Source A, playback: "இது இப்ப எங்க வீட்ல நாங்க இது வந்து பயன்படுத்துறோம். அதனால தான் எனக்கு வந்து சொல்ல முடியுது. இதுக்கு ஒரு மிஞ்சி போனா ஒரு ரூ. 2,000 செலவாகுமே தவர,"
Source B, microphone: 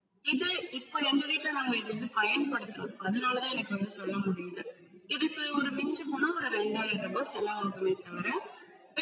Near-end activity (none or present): none